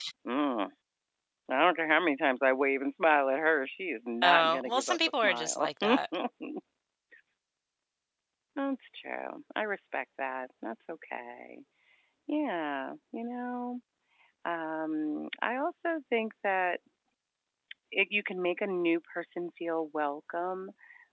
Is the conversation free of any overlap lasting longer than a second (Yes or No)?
No